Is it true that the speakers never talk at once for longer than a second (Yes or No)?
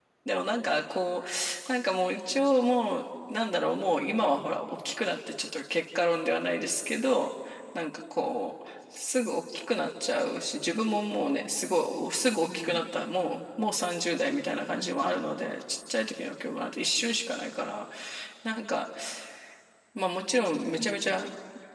Yes